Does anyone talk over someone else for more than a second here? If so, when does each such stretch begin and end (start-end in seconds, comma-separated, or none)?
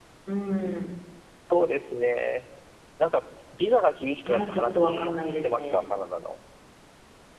4.2-5.8